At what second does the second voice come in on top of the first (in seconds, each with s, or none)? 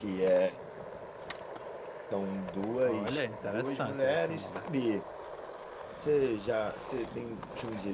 2.8 s